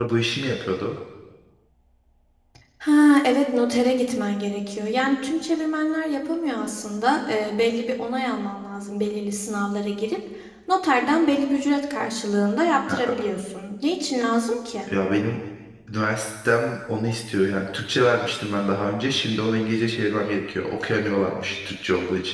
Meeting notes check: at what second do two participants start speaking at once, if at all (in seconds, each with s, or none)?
none